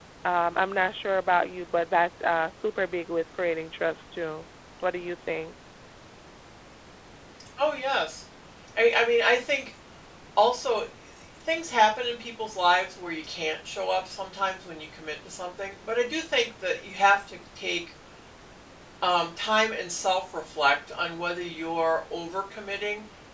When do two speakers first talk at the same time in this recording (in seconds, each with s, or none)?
none